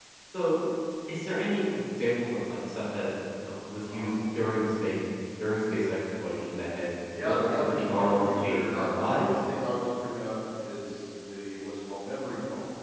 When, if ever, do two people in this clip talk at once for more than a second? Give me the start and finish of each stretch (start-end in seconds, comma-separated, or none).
7.2-9.3